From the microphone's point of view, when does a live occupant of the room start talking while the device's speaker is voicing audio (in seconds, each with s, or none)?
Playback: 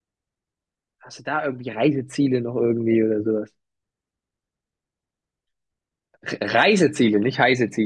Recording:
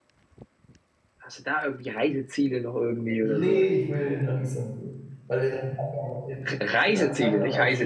3.2 s